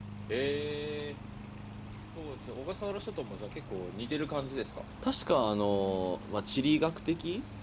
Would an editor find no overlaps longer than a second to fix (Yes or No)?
Yes